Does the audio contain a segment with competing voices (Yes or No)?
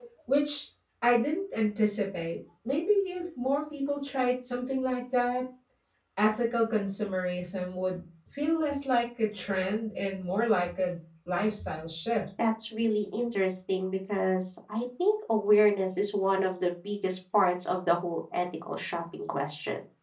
No